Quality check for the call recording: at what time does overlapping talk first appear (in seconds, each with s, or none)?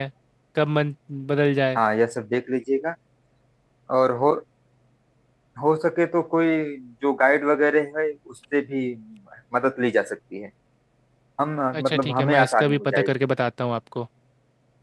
11.7 s